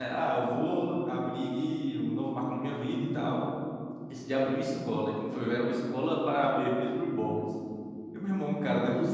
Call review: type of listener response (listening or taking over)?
listening